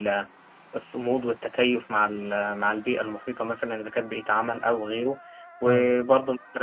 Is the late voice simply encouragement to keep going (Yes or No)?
Yes